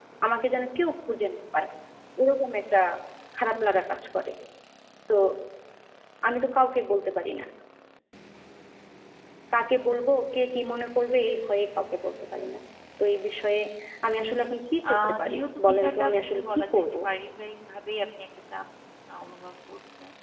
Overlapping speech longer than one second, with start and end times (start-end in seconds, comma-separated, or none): 14.9-16.8